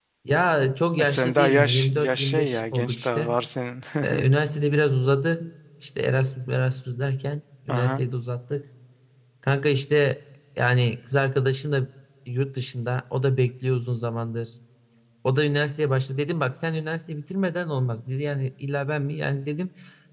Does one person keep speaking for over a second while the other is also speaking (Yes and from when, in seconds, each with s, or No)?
Yes, from 1.0 s